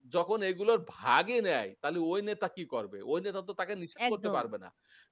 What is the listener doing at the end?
listening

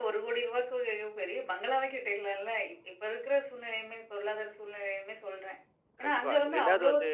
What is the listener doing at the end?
taking over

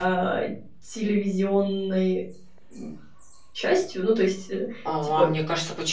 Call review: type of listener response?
taking over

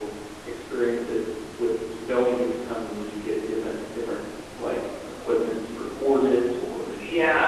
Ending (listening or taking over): taking over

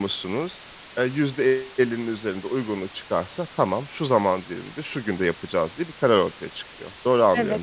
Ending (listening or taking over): taking over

